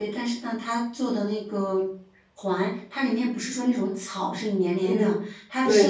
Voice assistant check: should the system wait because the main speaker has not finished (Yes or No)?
Yes